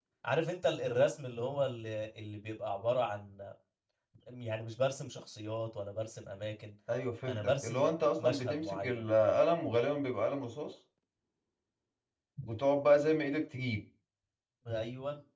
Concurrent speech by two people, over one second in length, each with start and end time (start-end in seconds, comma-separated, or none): 7.2-9.1